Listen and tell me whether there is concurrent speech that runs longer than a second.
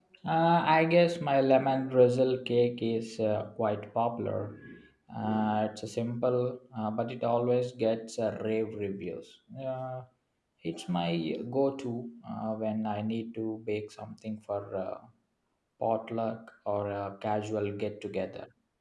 No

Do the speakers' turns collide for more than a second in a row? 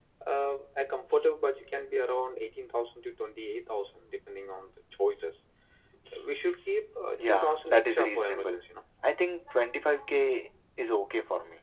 Yes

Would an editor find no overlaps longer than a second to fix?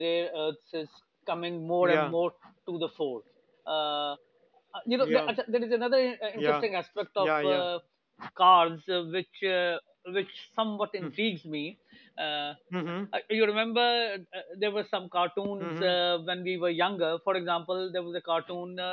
Yes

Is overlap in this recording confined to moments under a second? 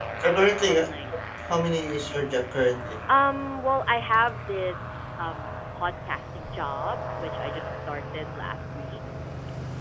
Yes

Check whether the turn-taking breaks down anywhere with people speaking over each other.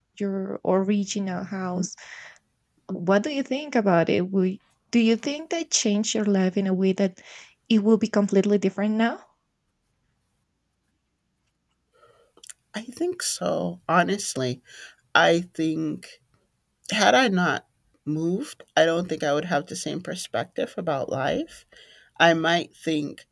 No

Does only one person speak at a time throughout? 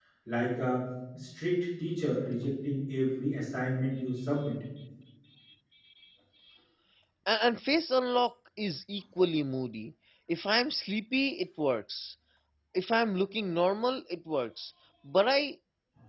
Yes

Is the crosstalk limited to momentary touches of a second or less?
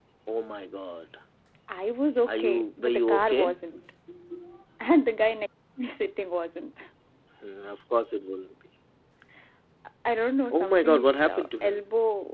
No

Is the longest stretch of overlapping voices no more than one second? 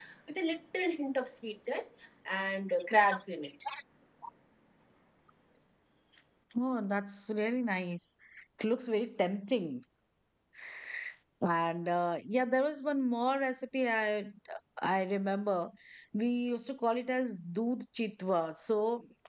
Yes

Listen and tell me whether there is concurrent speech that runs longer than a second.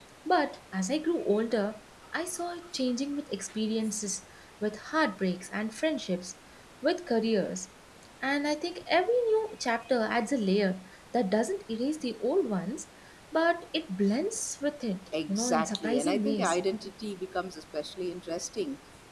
Yes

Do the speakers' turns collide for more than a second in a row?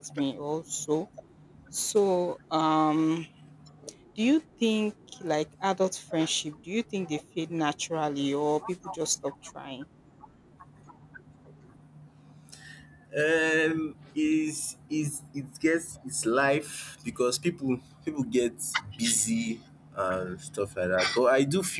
No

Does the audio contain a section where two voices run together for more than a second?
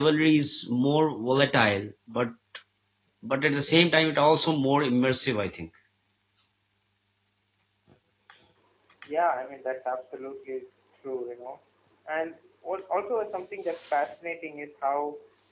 No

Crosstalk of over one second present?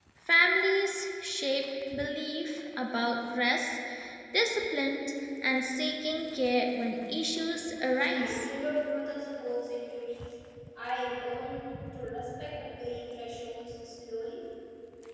No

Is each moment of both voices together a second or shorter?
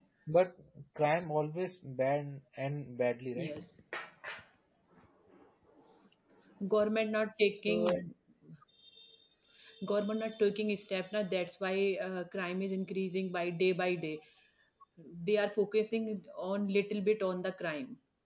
Yes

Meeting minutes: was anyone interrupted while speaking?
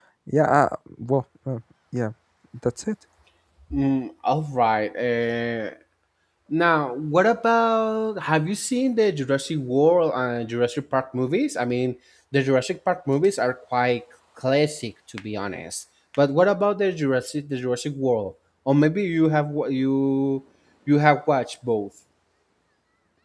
No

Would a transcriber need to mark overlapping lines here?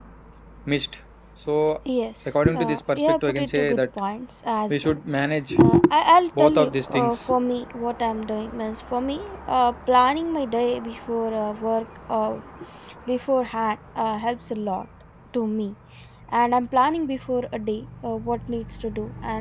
Yes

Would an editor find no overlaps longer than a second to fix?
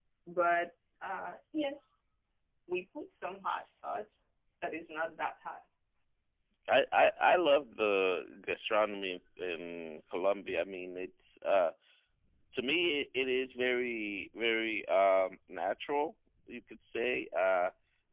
Yes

